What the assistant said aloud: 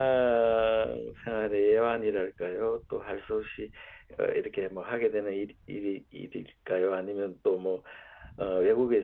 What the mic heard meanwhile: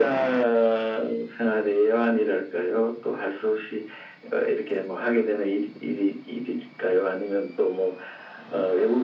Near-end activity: none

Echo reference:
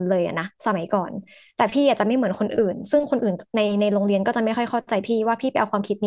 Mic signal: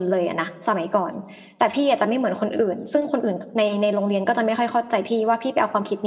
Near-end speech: none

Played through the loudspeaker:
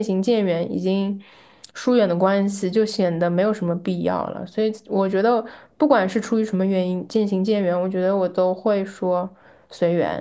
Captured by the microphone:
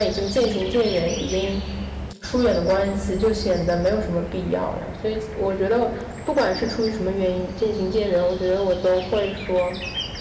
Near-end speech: none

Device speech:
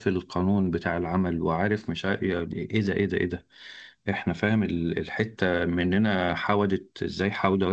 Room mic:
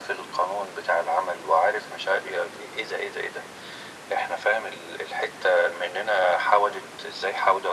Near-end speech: none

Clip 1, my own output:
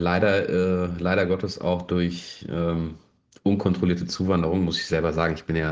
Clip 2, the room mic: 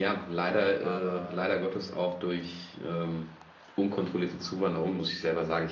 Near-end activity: present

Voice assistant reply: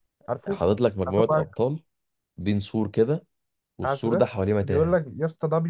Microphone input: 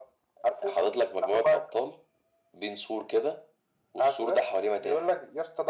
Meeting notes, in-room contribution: none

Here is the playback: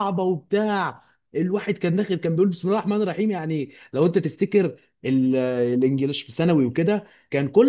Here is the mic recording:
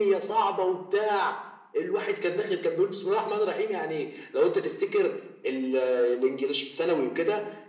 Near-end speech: none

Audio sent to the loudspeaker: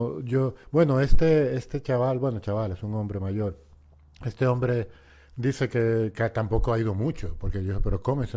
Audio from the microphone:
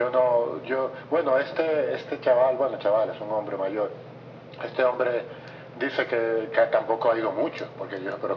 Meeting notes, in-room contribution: none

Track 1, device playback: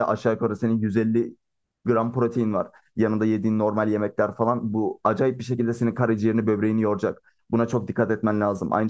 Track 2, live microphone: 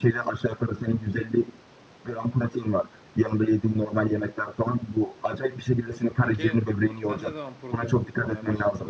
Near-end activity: present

